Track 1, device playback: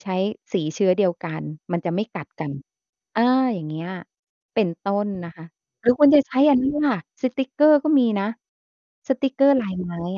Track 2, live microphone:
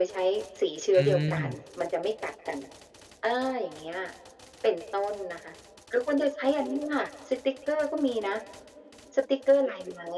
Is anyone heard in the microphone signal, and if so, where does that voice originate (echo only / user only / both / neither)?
both